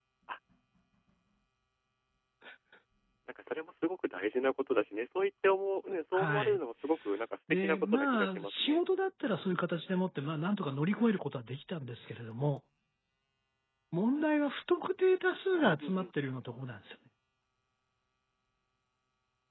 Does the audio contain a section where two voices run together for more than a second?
Yes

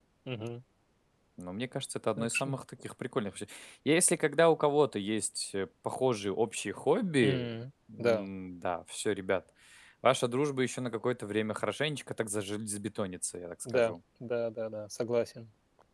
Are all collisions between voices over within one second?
Yes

